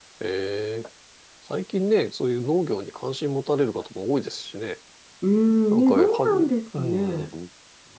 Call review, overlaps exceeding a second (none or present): present